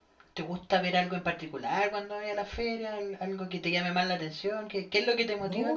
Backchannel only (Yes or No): No